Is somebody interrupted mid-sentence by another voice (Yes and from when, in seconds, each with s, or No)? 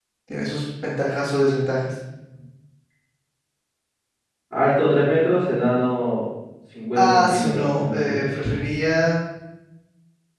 Yes, from 7.0 s